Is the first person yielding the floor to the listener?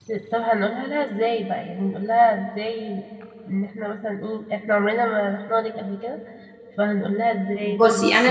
Yes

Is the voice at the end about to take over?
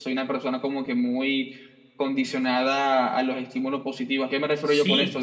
Yes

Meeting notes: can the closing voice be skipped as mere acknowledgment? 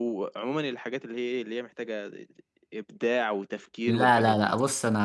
No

